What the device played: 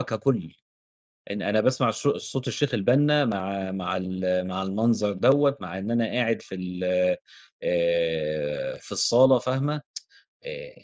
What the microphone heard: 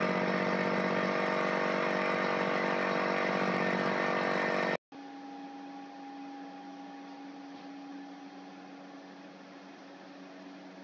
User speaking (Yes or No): No